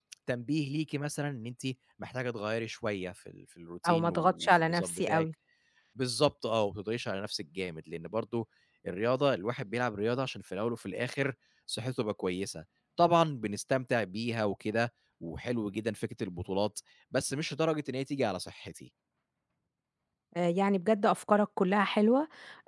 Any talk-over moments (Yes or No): Yes